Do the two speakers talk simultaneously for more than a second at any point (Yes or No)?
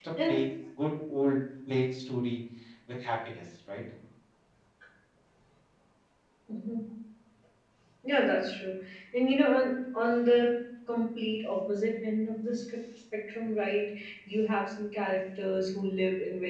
No